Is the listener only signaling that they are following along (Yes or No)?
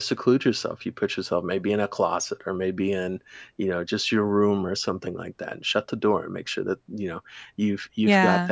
Yes